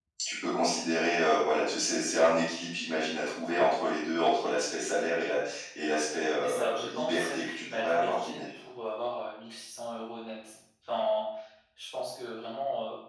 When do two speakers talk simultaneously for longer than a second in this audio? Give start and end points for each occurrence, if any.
6.4-8.6

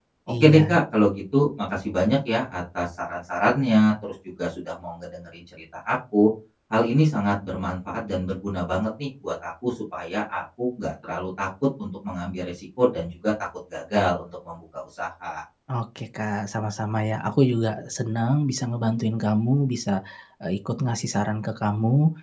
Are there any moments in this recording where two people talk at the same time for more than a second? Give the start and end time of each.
none

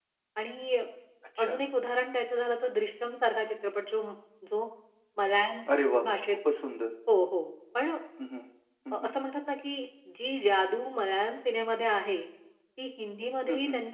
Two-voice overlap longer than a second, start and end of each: none

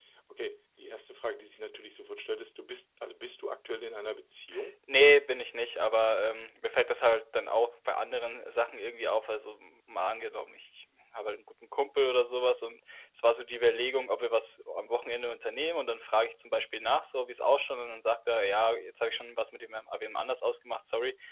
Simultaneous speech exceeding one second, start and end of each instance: none

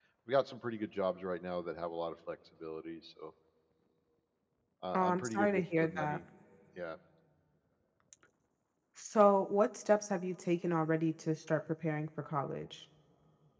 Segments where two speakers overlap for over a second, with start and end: 4.9-6.2

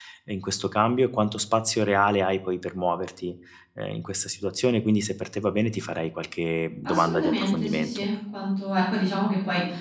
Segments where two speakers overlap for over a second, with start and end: 6.8-8.1

